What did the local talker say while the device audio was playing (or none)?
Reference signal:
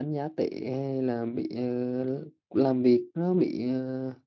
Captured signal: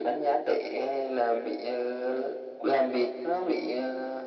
none